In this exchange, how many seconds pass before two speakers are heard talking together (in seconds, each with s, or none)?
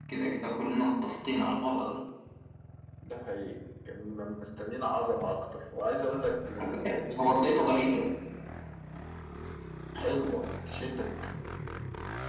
6.6 s